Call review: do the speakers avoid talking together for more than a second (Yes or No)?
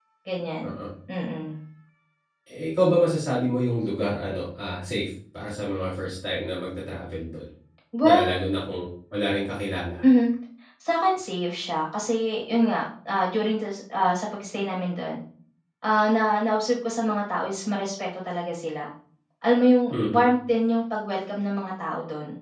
Yes